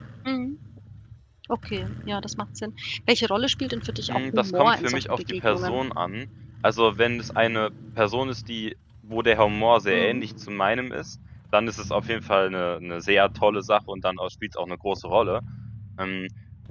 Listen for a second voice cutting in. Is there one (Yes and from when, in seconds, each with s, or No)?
Yes, from 4.1 s